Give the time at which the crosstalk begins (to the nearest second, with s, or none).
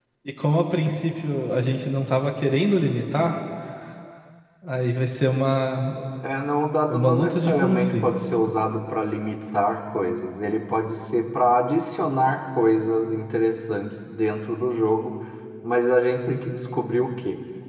7 s